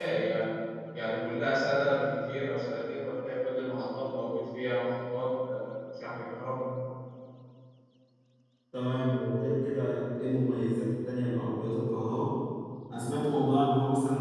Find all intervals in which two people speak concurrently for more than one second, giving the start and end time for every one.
none

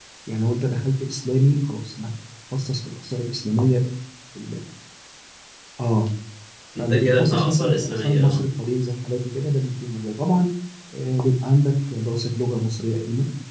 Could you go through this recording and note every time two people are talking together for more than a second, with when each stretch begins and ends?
6.8-8.4

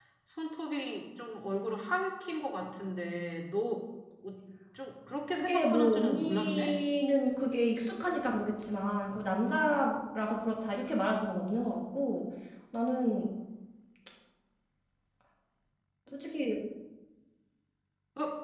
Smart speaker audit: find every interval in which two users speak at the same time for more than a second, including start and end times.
5.3-6.7

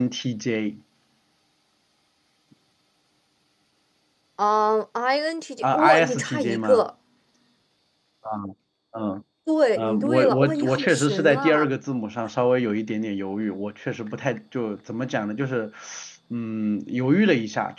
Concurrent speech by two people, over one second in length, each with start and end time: 5.6-6.8, 9.8-11.6

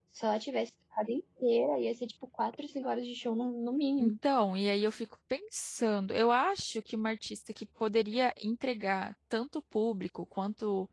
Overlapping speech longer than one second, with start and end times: none

